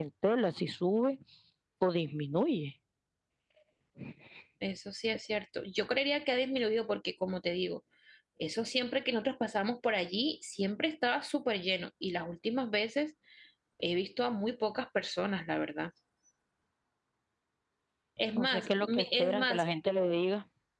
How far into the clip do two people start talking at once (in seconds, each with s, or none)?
18.3 s